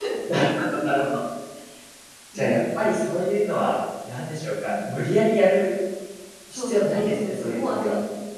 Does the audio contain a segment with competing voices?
Yes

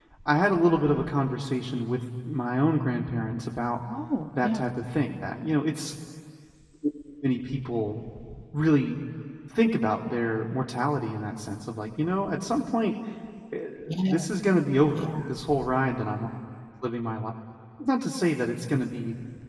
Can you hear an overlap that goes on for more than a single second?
No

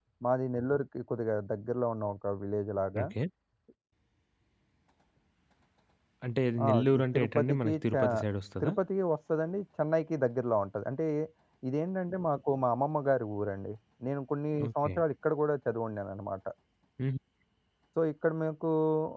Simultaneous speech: Yes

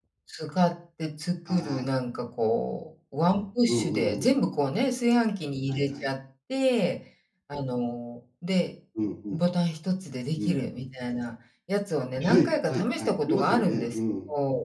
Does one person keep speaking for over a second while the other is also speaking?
Yes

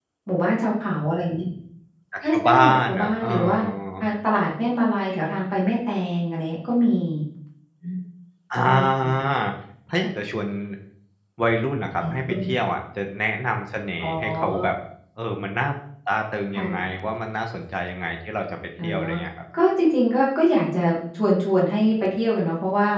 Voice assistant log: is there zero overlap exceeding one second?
No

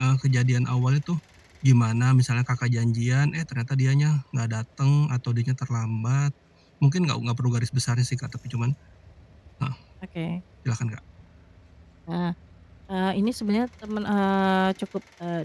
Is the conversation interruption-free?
Yes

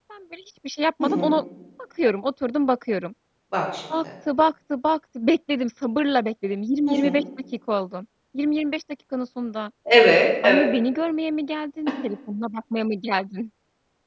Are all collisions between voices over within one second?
Yes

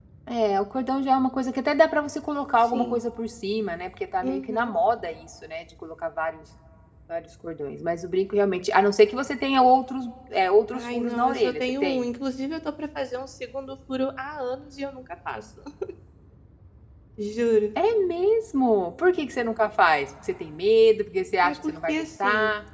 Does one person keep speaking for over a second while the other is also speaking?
Yes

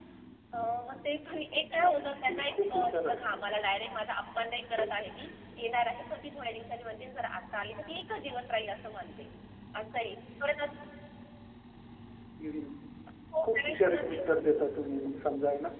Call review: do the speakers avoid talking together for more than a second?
No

